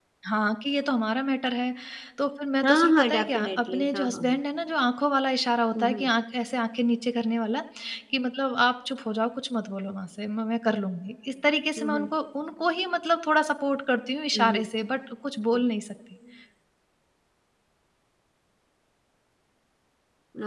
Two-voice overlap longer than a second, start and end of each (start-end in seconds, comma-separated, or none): 2.6-4.2